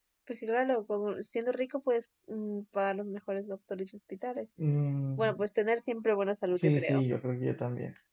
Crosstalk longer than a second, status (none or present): none